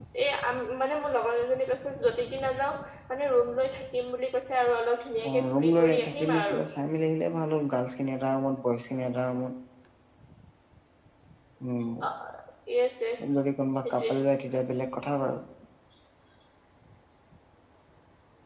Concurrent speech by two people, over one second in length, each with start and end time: 5.3-6.6

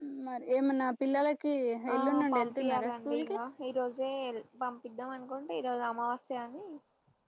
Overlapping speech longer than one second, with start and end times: 1.9-3.4

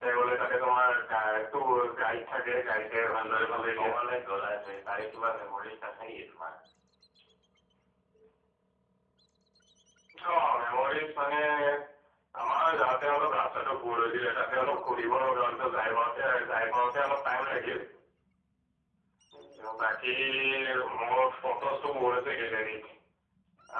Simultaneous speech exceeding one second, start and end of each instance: 2.5-3.9

